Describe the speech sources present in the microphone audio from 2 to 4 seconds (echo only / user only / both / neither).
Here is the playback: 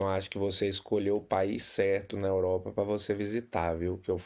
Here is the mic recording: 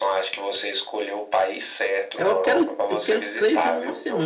both